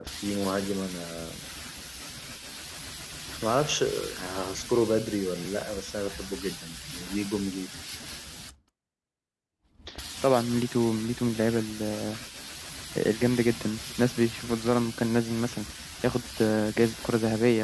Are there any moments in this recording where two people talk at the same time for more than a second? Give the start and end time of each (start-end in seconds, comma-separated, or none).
none